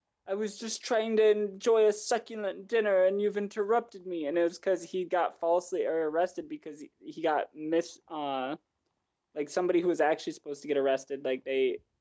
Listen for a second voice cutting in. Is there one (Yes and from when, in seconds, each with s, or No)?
No